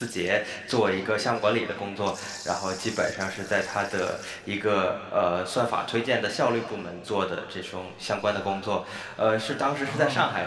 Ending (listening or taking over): listening